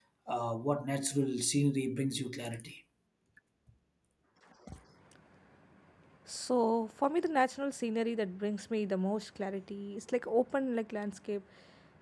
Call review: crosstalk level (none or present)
none